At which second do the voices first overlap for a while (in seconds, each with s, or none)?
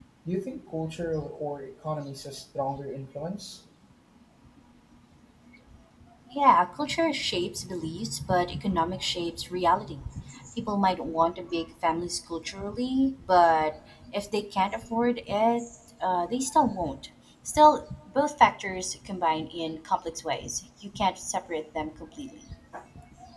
none